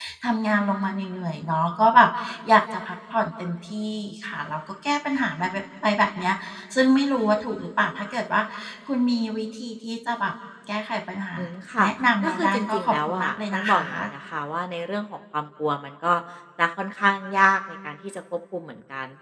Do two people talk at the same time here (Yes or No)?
Yes